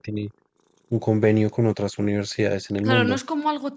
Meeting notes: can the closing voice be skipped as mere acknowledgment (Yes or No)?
No